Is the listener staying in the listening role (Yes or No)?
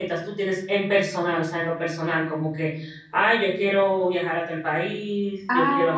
No